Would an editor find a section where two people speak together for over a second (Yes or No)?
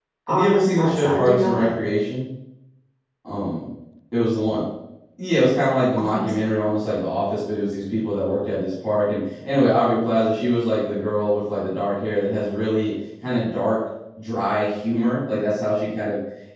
Yes